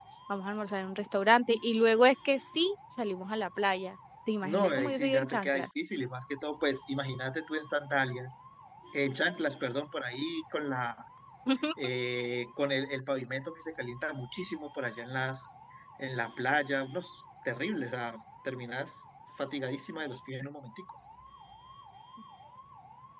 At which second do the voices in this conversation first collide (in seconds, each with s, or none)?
4.4 s